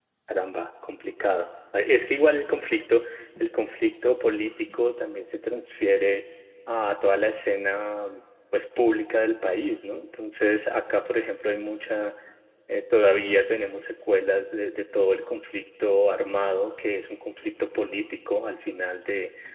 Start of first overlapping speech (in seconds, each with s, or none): none